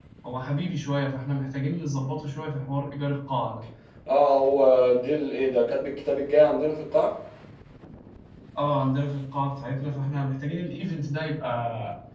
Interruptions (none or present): none